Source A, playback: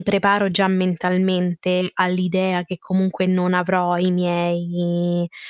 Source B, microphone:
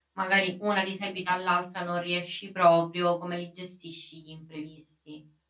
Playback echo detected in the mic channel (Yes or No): No